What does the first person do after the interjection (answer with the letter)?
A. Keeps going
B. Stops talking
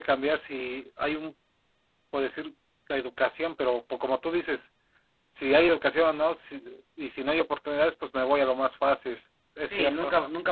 B